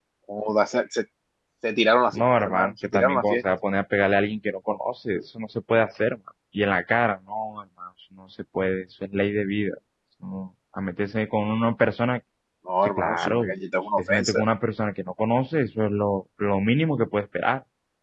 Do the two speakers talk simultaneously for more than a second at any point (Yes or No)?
Yes